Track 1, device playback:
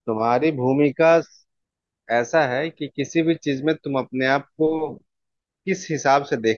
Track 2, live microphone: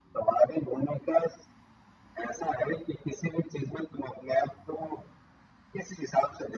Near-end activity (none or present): none